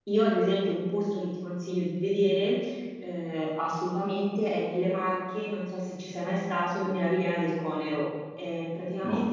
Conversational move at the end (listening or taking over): listening